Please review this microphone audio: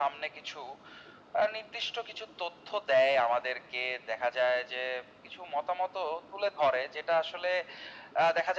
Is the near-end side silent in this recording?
Yes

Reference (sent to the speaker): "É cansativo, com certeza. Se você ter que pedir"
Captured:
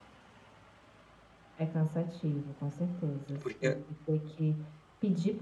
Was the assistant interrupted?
Yes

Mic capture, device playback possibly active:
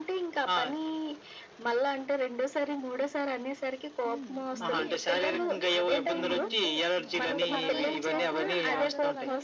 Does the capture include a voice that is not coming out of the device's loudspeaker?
Yes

